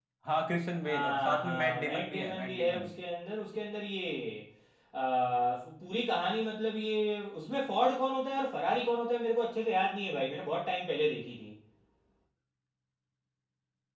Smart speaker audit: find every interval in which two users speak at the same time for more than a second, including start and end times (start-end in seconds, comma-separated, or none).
0.8-2.9